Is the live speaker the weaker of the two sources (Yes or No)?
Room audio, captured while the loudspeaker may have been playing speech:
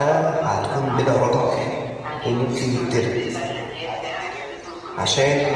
No